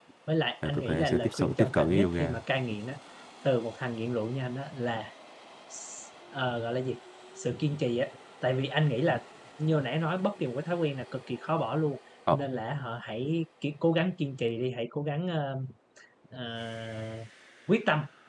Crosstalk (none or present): present